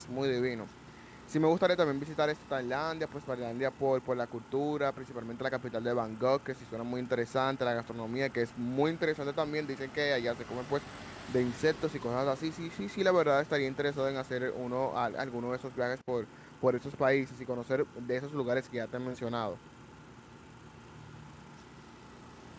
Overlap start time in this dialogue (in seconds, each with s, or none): none